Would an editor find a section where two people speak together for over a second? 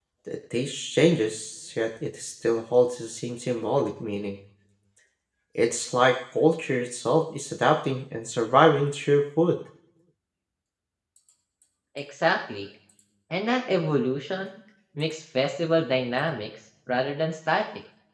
No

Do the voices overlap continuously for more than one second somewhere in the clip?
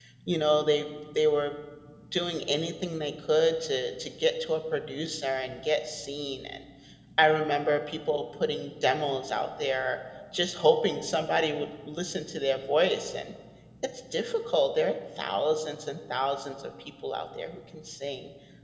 No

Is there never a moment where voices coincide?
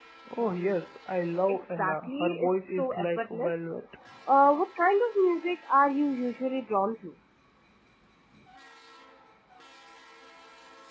No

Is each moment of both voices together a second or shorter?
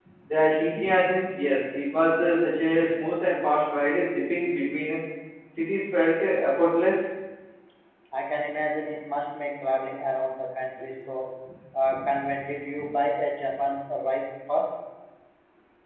Yes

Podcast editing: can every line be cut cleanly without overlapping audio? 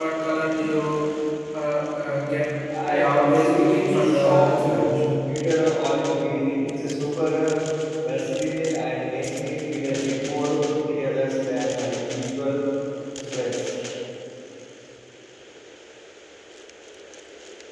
No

